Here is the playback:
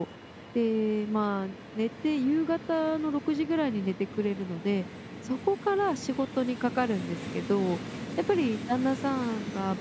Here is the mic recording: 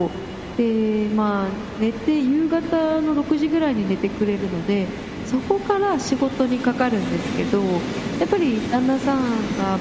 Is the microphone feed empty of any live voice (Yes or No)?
Yes